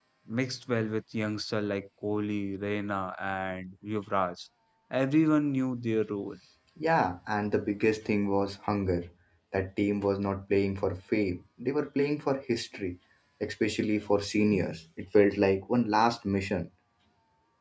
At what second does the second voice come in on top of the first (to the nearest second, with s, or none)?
none